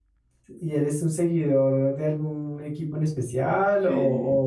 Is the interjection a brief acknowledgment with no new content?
No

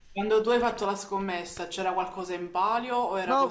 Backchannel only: No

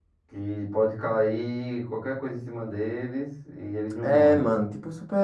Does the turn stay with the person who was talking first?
No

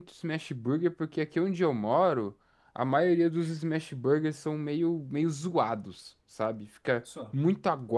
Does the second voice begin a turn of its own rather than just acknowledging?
No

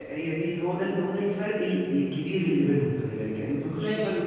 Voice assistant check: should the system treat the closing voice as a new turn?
No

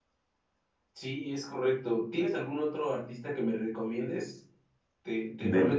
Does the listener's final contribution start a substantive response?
No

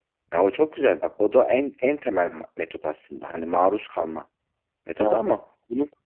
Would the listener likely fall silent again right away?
Yes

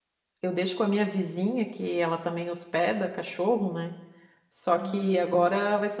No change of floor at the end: Yes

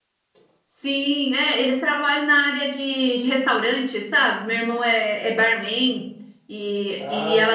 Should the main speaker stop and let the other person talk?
No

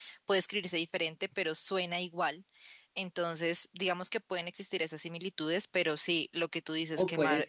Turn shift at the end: Yes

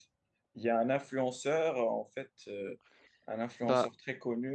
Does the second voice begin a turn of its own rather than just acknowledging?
No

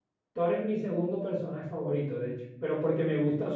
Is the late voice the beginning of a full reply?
No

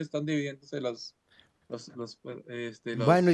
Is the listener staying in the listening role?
No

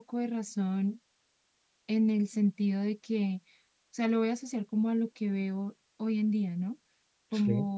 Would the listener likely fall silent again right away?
Yes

